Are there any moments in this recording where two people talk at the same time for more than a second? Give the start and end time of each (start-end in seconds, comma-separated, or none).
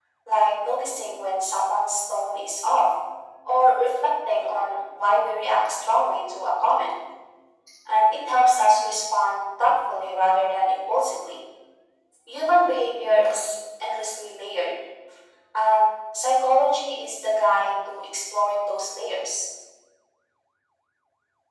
none